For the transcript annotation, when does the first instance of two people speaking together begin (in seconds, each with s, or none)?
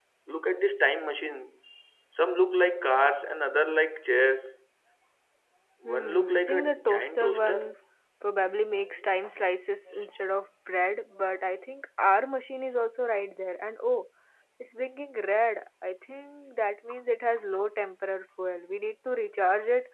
5.8 s